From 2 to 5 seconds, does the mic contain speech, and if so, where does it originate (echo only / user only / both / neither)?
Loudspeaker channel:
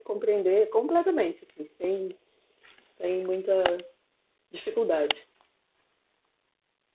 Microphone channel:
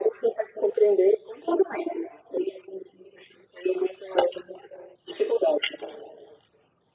echo only